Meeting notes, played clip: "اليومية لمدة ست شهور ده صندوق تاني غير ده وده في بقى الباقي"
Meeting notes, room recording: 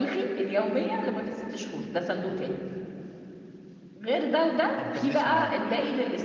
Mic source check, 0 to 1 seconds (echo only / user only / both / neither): echo only